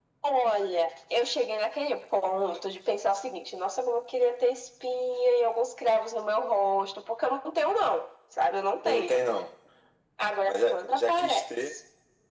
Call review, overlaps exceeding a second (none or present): present